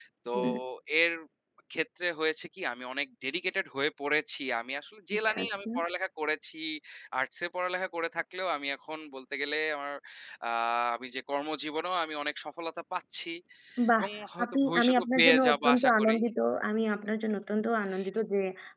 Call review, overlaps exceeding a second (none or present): present